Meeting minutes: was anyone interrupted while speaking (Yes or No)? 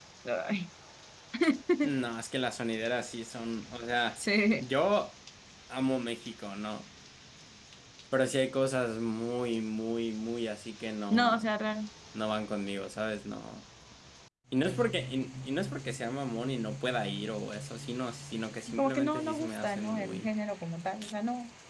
Yes